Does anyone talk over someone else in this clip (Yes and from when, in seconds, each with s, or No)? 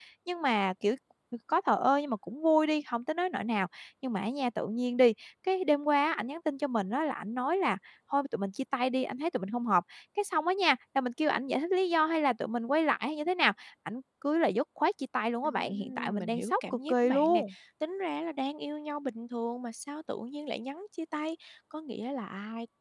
Yes, from 15.4 s